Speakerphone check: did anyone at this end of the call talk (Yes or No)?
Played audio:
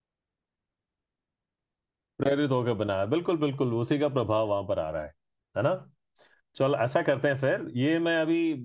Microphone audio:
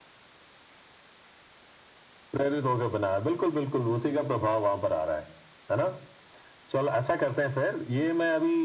No